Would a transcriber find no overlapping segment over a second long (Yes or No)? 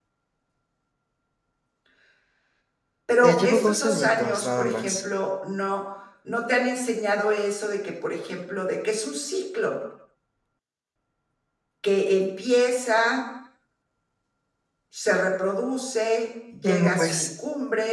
No